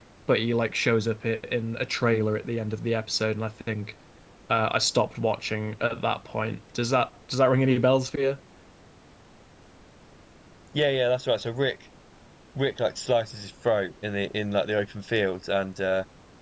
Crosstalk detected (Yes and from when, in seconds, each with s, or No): No